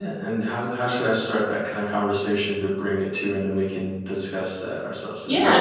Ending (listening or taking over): taking over